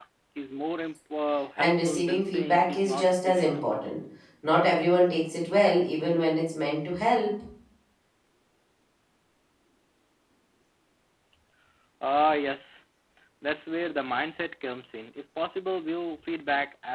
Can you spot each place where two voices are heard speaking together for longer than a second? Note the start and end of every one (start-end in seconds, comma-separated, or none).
1.6-3.6